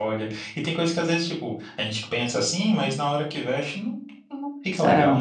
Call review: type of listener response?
taking over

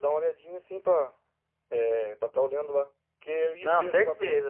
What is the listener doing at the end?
listening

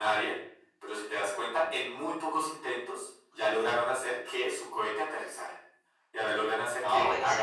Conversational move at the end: listening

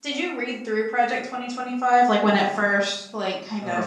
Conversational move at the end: taking over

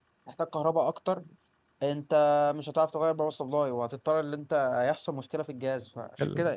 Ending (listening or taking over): listening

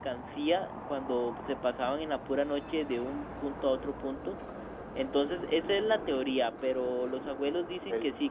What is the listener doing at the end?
listening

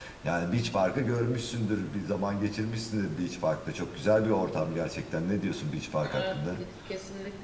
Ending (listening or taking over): taking over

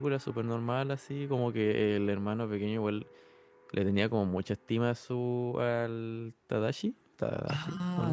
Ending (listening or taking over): taking over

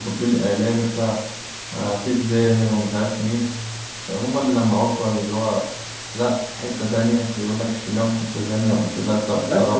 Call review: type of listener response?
taking over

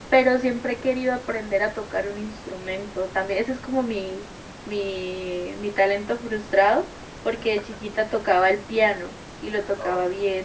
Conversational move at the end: listening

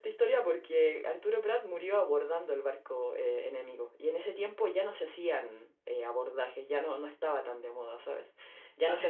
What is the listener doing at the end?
taking over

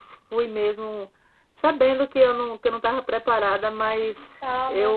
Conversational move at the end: listening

